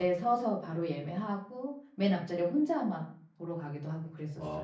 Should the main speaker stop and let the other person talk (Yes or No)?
Yes